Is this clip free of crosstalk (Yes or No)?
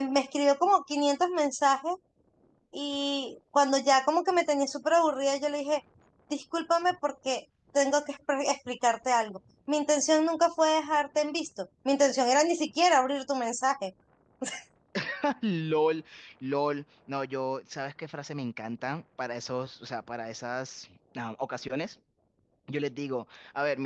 Yes